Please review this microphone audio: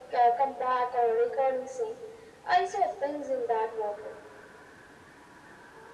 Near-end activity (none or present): none